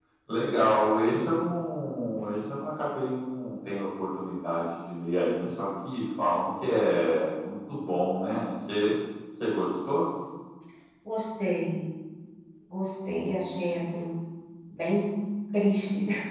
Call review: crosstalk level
none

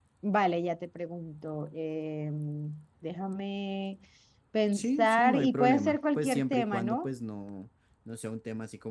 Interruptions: present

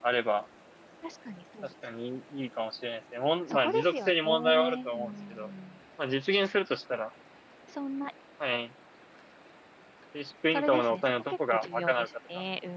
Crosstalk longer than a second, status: present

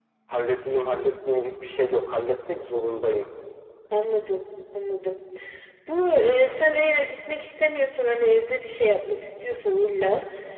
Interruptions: none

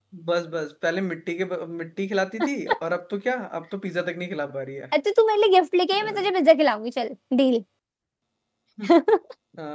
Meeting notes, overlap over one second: none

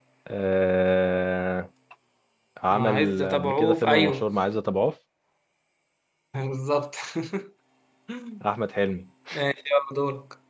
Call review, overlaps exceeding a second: present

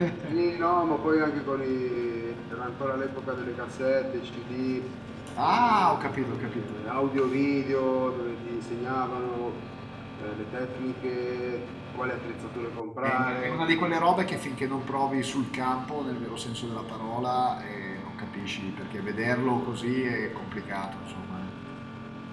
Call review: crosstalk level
present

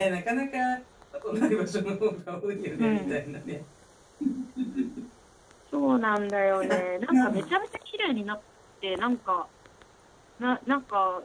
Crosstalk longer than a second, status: none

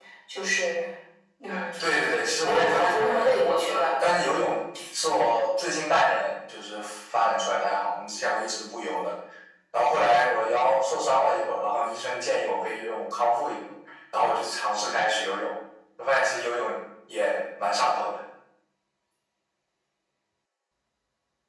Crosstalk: present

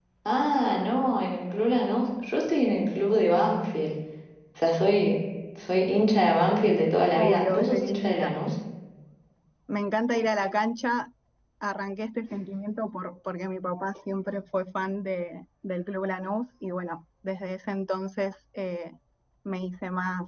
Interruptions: present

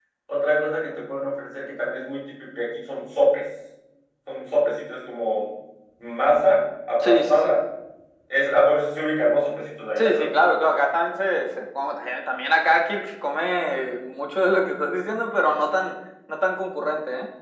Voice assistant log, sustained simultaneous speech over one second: none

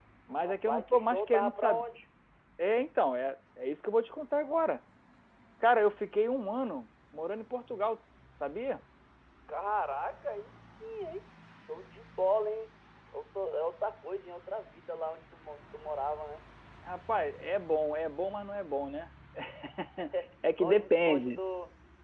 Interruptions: present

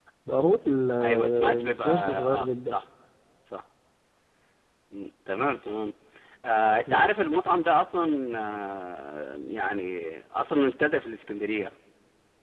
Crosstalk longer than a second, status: present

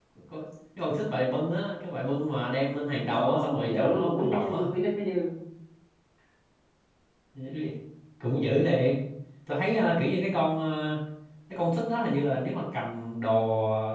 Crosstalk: present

